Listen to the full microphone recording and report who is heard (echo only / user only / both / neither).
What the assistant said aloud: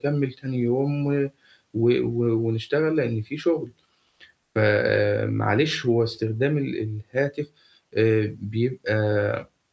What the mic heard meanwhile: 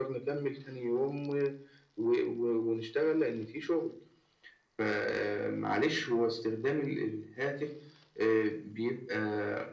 echo only